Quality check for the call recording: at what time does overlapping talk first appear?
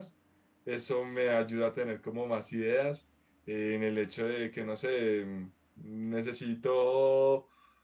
none

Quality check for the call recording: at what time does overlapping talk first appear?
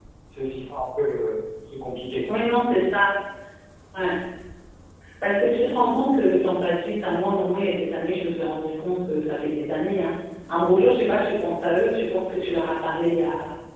none

